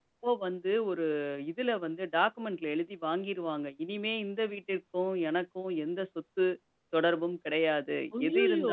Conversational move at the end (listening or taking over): listening